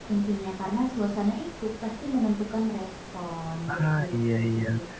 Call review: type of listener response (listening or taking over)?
taking over